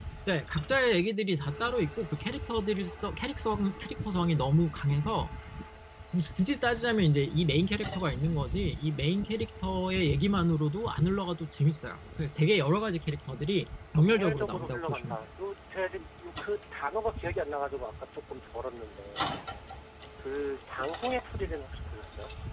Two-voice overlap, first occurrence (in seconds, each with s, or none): 14.0 s